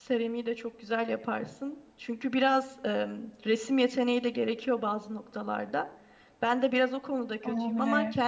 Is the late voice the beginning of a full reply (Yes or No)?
No